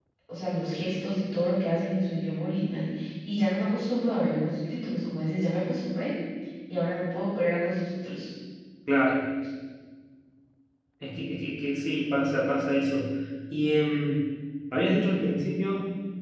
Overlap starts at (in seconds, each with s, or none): none